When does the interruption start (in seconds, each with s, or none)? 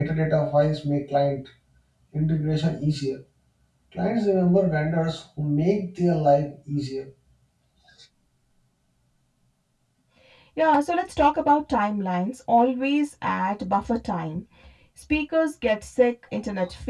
none